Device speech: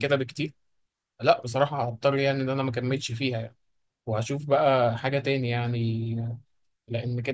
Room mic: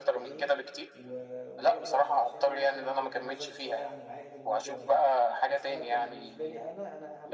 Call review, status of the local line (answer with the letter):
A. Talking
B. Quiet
A